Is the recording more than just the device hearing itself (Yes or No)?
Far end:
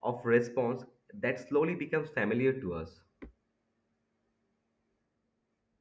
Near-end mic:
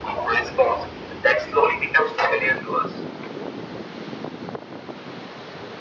No